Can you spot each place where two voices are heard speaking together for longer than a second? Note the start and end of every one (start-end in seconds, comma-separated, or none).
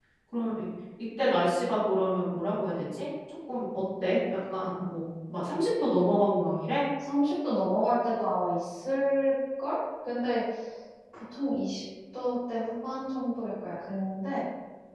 none